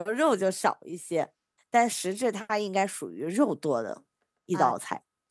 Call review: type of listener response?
taking over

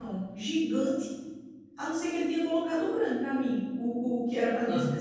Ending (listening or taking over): listening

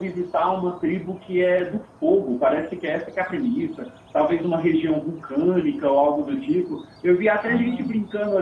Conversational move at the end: listening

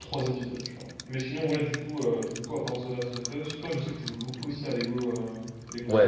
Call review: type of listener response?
taking over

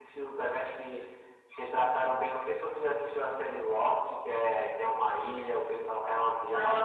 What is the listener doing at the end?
taking over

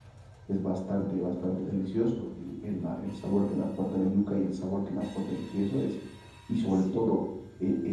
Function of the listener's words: listening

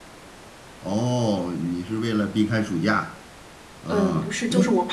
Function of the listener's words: taking over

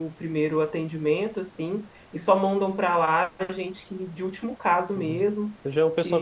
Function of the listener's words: taking over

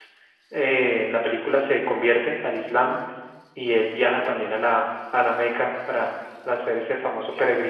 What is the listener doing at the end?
taking over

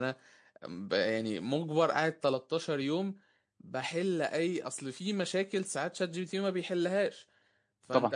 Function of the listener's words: listening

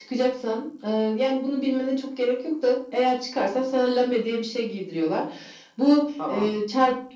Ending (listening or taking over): listening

